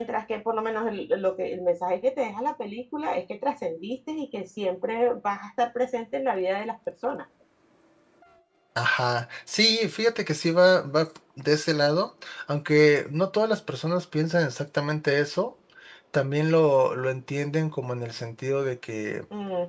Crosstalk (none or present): none